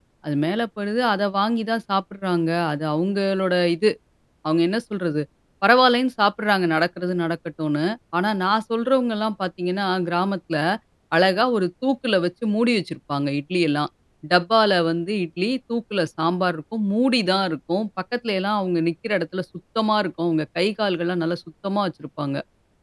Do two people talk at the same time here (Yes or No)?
No